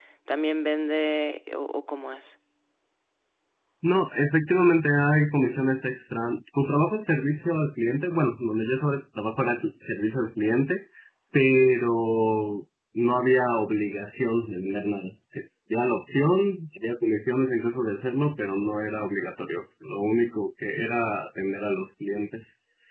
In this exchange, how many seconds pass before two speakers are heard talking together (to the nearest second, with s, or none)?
none